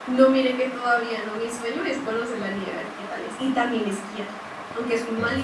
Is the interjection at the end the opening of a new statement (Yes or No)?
No